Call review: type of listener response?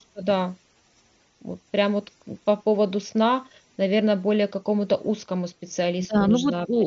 taking over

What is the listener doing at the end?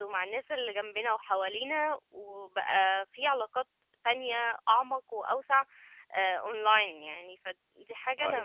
taking over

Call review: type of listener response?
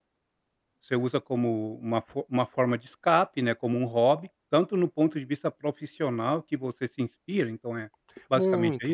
taking over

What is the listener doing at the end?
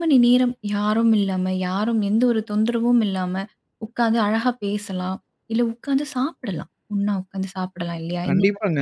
taking over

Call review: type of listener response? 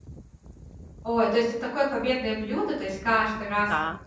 listening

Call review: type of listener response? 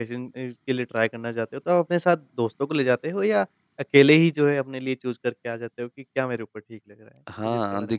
taking over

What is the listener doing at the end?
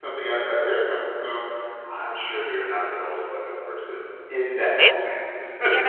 taking over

